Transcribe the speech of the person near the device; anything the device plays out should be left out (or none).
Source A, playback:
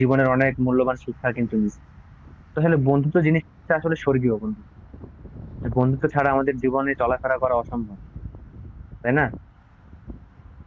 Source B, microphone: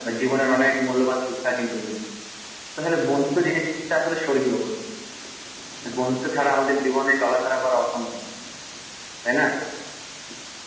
none